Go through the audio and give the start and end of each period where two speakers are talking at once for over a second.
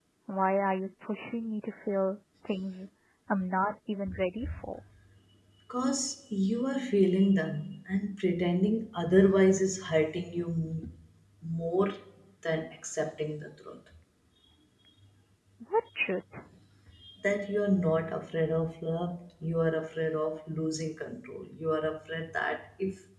none

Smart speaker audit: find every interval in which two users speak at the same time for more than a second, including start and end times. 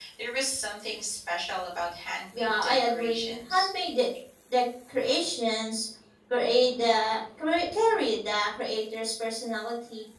2.3-3.7

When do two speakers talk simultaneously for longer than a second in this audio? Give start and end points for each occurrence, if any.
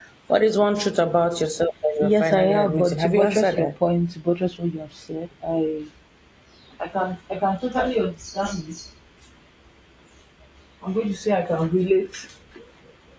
2.0-3.7

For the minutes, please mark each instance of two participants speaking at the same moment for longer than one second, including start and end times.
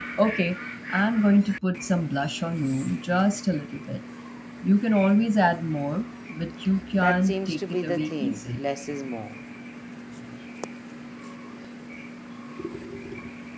7.0-8.6

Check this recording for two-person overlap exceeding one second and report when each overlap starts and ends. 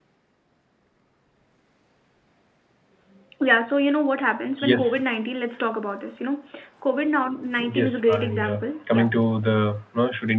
7.7-9.1

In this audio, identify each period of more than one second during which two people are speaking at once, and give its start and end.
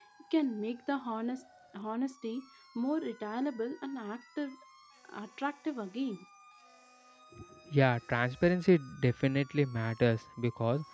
none

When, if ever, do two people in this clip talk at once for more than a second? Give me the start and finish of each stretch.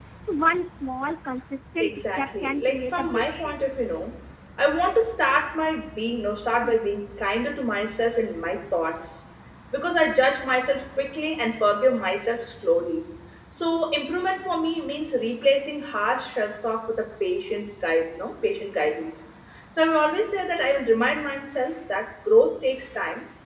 1.8-3.5

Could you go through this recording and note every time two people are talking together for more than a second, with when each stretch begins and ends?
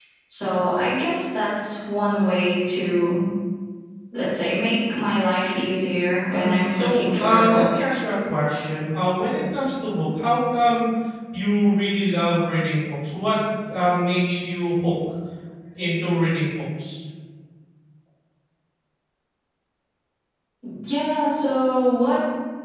6.3-7.8

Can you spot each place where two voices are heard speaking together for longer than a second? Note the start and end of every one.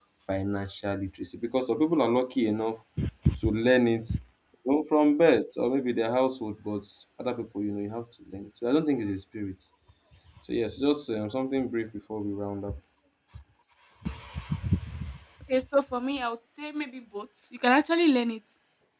none

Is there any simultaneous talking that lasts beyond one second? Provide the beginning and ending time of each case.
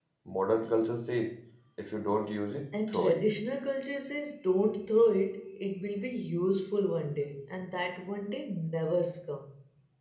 none

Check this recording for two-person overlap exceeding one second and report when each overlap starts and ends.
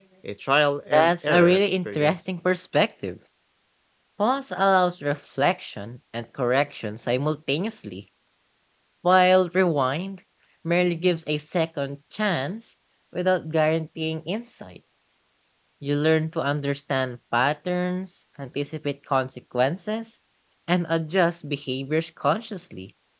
0.9-2.1

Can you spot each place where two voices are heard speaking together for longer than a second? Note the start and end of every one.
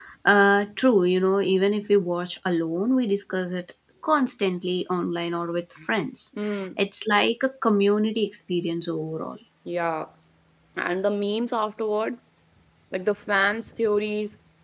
none

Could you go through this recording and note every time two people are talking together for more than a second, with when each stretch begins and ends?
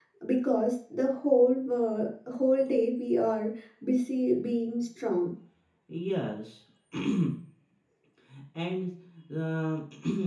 none

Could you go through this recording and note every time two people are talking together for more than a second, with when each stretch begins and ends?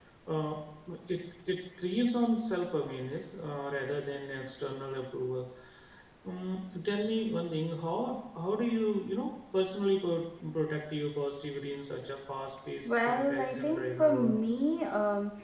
12.8-14.4

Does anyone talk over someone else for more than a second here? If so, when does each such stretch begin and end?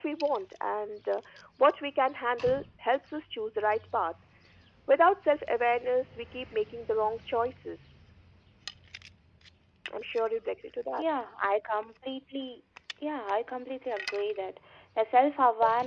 none

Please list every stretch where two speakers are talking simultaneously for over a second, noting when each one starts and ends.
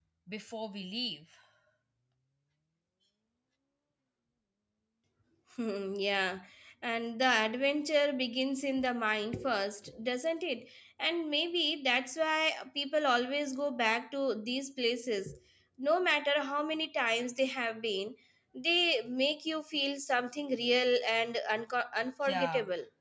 none

